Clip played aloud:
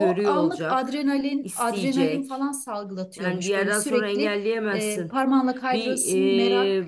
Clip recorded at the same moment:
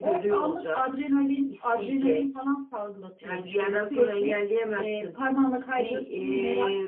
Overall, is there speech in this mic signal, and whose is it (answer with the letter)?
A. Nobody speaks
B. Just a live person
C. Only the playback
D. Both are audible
C